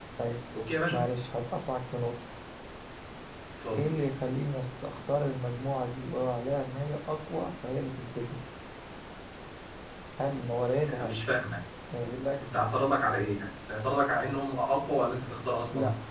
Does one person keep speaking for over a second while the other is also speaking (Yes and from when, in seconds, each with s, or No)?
No